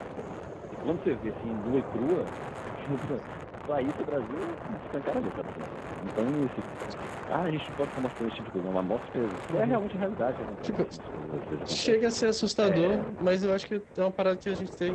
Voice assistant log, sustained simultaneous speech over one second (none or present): none